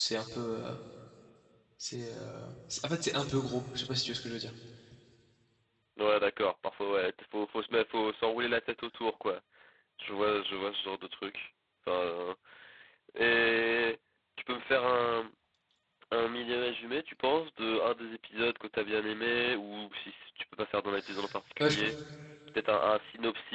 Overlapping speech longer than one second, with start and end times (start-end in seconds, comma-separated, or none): none